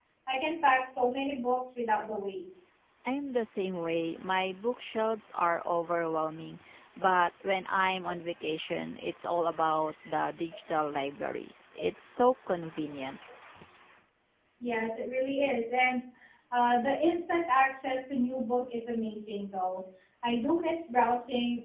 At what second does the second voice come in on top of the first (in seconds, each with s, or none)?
none